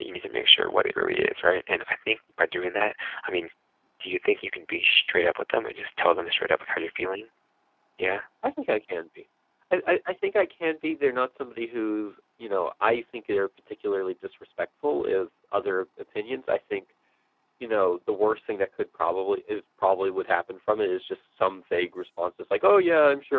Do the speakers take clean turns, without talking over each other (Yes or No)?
Yes